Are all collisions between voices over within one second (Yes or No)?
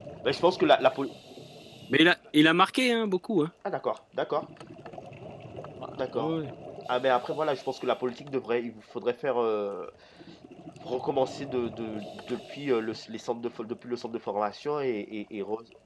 Yes